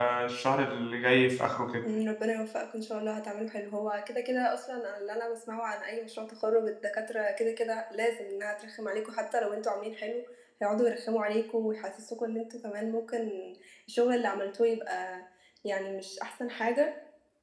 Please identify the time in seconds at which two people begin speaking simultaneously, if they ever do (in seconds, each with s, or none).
none